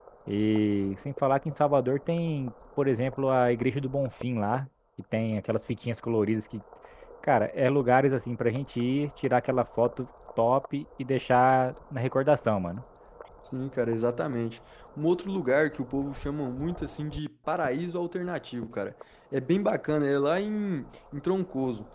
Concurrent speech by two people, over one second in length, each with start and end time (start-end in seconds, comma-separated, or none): none